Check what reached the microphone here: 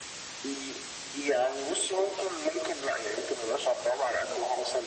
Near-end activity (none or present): none